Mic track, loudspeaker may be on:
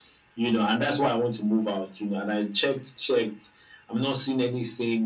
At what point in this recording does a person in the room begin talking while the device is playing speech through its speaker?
none

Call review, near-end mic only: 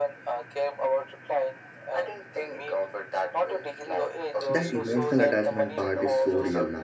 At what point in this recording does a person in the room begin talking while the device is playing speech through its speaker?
4 s

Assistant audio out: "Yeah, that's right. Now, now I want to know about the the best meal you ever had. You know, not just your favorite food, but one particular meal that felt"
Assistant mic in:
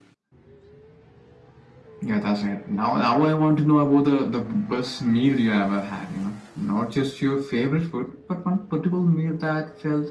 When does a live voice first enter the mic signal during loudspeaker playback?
none

